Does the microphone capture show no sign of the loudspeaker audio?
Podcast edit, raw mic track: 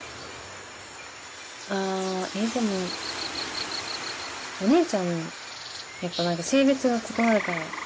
Yes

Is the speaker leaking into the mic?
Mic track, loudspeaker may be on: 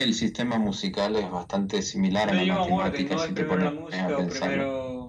Yes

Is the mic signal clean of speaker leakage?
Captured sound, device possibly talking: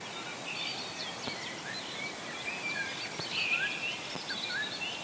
Yes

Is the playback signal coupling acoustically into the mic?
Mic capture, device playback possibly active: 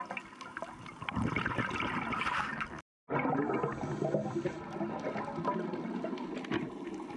No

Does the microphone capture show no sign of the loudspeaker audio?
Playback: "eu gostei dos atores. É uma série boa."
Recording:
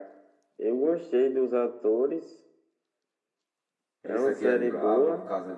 No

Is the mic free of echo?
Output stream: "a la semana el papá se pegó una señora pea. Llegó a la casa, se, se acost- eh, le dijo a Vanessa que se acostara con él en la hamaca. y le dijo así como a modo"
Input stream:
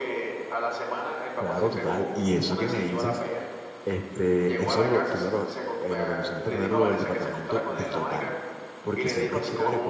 No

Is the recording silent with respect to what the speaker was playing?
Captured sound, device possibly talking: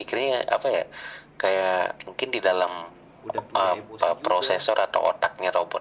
No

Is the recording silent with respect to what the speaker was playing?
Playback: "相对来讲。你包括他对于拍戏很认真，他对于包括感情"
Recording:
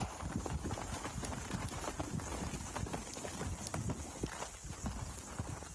Yes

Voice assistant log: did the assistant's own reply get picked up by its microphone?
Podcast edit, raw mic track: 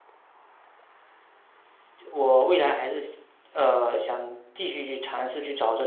No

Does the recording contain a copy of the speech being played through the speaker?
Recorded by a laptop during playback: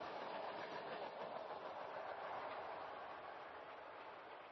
No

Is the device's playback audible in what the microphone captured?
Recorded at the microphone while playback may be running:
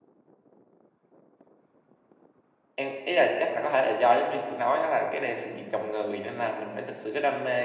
No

